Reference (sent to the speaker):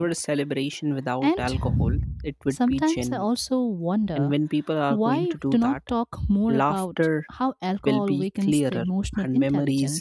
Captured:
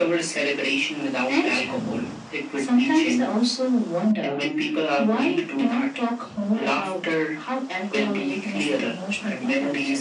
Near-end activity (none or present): none